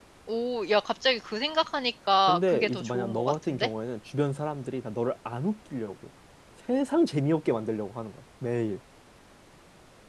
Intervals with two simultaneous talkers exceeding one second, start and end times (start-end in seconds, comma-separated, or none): 2.2-3.7